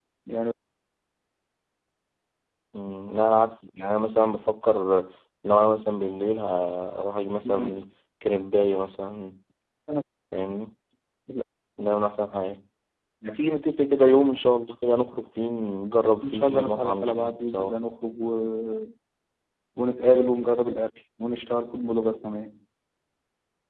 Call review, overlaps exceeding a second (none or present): present